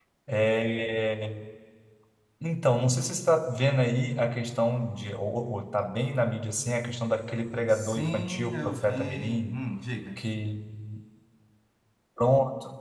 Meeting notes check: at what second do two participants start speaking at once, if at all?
7.7 s

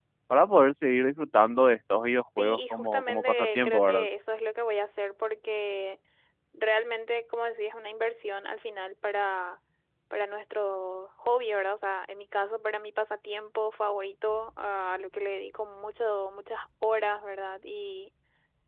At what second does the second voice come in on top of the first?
2.4 s

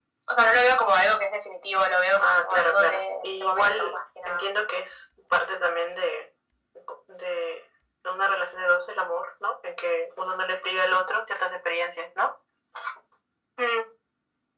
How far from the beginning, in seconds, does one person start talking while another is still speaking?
2.1 s

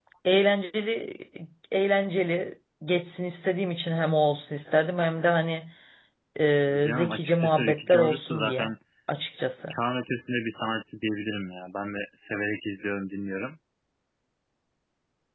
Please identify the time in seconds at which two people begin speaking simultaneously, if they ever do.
6.7 s

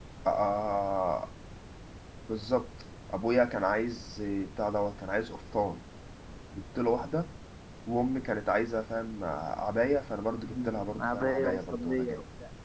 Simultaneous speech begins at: 10.4 s

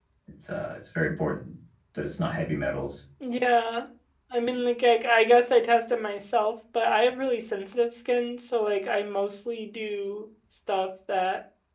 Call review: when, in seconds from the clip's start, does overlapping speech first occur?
none

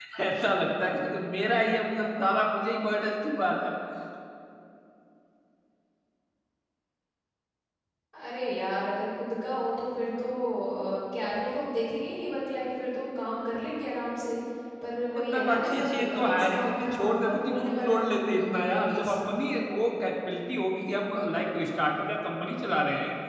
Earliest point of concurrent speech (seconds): 15.2 s

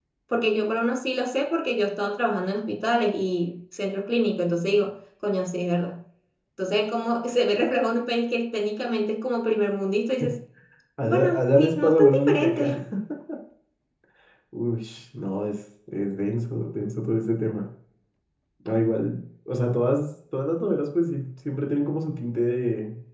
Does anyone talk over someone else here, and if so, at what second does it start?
11.1 s

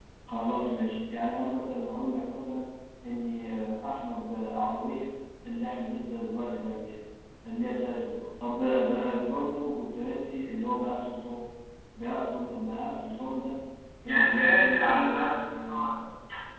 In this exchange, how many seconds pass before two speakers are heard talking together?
14.1 s

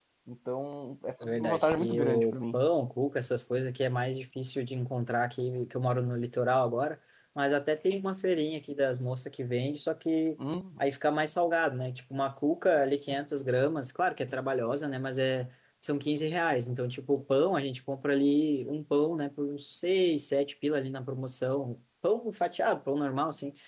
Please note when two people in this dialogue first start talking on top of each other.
1.2 s

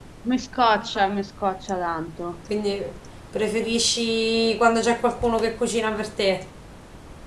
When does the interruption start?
none

